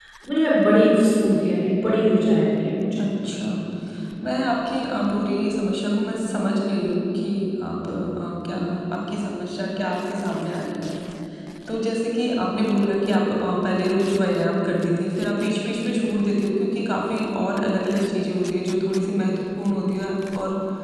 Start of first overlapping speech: none

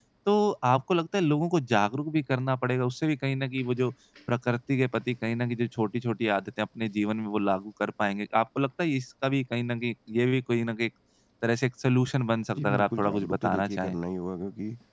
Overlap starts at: 13 s

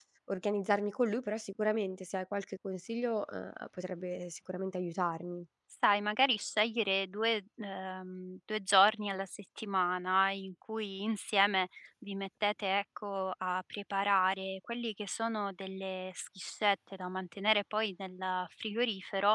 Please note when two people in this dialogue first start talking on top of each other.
none

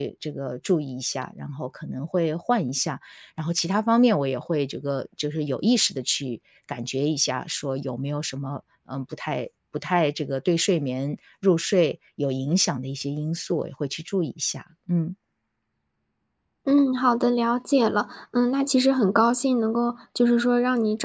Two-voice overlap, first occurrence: none

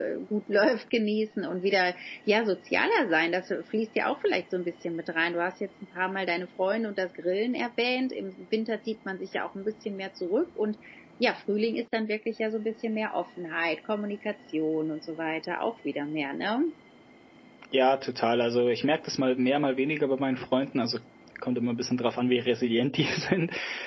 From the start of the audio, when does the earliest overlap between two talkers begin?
none

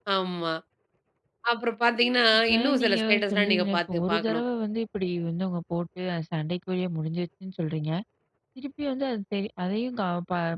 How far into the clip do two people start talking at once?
2 s

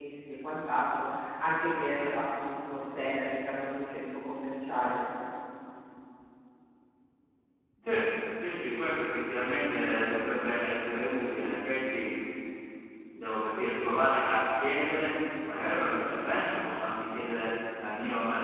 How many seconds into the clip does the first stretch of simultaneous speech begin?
none

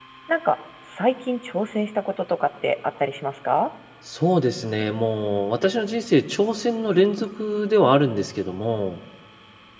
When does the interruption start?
none

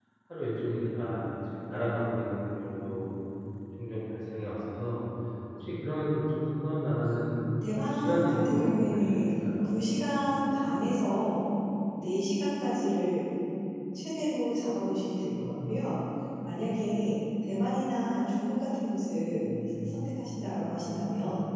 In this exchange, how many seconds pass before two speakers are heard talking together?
8 s

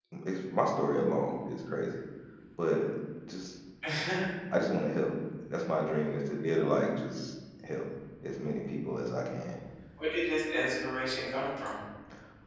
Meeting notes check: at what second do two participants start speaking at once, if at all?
none

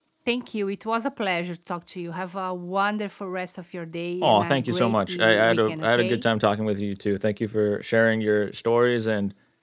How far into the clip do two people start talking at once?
4 s

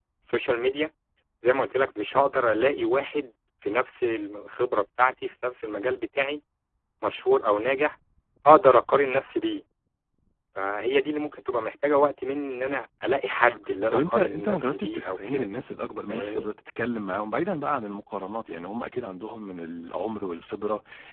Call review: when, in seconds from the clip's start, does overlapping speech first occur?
13 s

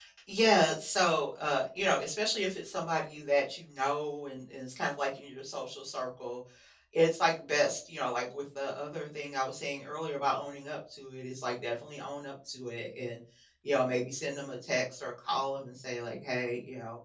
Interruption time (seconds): none

